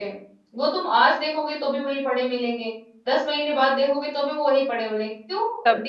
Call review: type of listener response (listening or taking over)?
taking over